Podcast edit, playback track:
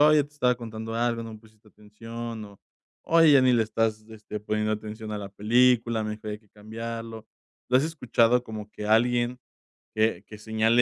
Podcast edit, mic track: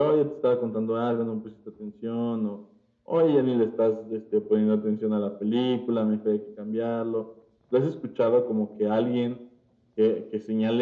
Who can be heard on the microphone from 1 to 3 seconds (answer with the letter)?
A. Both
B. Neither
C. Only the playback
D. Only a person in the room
C